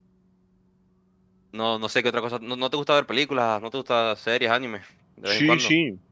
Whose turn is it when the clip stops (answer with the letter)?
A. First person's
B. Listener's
B